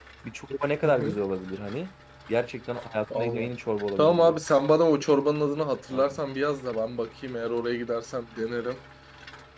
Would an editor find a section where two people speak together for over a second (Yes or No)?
No